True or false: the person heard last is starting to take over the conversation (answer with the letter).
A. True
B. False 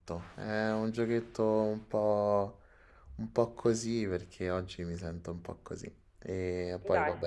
B